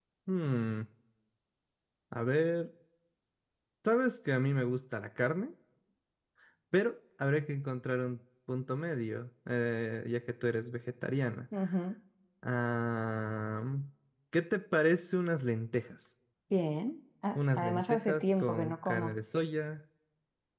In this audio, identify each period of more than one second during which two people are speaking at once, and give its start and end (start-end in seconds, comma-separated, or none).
17.4-19.2